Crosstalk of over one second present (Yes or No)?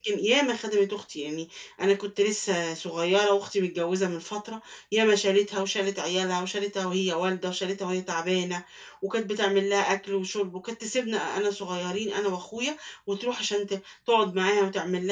No